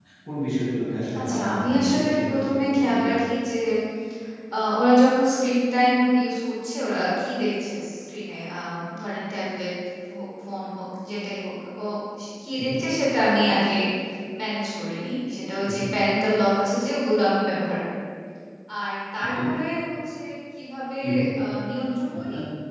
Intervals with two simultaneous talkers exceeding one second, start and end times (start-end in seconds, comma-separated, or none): 1.2-3.2